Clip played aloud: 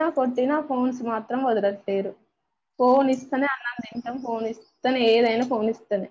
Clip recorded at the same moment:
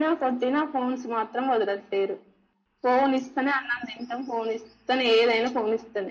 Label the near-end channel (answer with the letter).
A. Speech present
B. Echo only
B